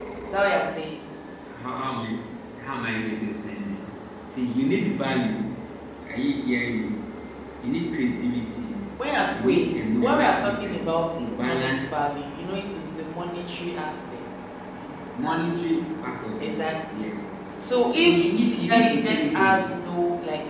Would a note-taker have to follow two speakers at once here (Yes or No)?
Yes